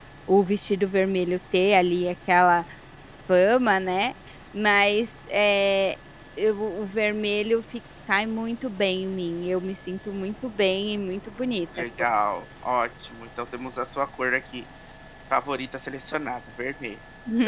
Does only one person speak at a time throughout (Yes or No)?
Yes